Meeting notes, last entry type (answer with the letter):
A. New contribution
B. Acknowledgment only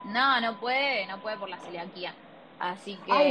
A